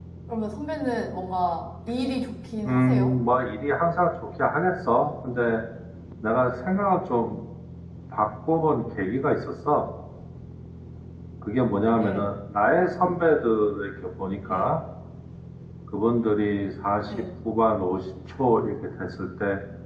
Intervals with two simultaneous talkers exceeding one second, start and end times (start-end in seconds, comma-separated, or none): none